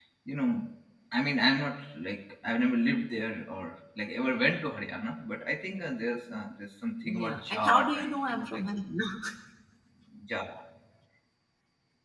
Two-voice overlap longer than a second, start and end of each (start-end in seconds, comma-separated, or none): 7.0-8.6